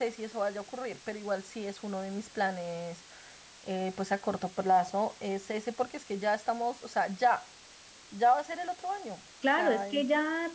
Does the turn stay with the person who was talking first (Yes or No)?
No